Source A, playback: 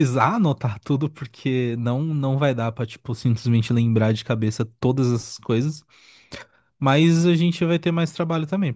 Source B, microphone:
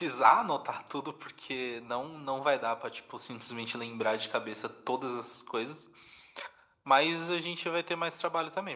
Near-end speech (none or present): none